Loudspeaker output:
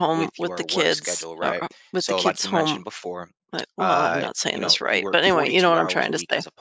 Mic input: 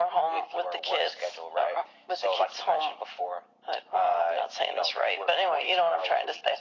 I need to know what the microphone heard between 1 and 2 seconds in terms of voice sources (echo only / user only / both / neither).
echo only